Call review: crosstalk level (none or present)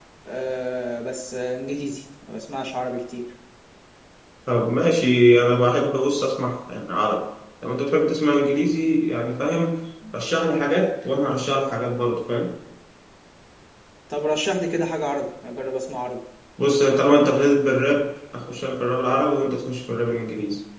none